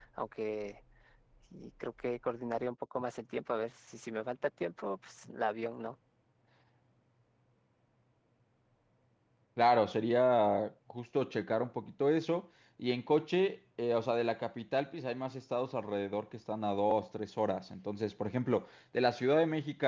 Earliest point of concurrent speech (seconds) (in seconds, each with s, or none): none